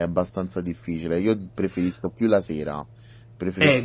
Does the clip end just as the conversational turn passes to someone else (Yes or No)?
Yes